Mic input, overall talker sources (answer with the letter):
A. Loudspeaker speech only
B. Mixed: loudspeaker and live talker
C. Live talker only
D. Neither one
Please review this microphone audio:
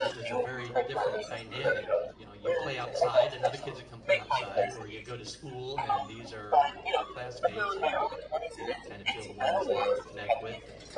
B